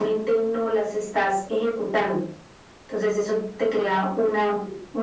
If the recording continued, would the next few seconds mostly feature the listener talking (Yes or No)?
No